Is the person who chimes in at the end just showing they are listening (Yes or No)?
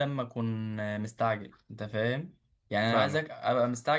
Yes